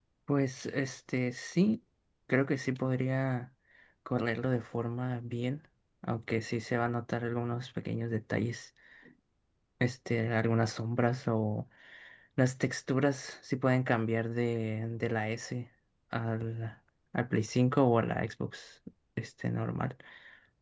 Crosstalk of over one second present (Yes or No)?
No